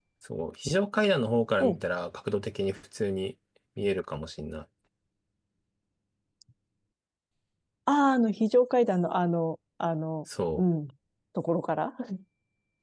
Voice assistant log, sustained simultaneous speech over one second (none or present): none